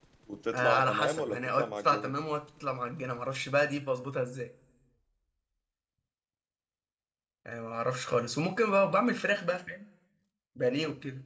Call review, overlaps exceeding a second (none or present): present